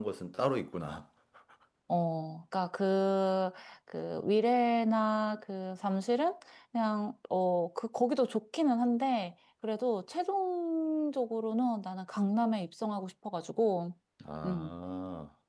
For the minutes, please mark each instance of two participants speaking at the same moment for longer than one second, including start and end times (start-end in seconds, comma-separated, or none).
none